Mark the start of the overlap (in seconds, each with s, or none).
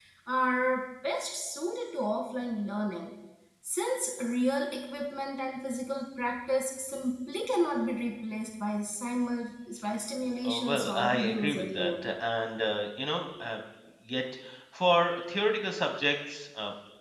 10.4 s